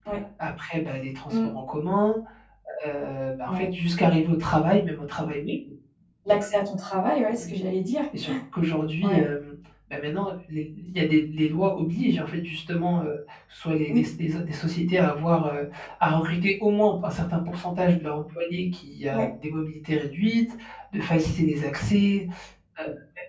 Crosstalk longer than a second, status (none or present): none